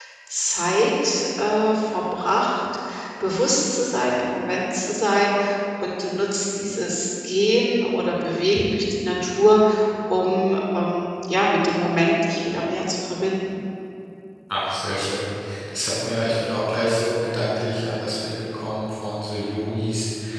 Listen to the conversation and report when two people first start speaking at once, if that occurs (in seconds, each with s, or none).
none